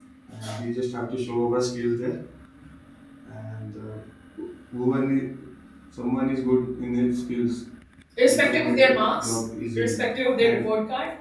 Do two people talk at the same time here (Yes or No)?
Yes